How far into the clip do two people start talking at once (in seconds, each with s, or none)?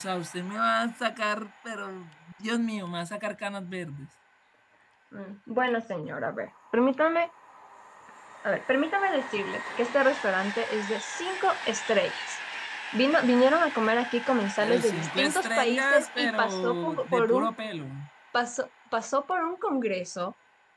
14.6 s